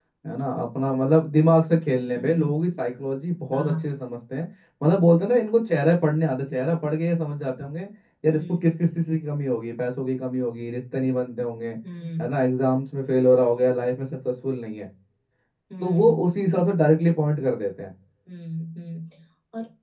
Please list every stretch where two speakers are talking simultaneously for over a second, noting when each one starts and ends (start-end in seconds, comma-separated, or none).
none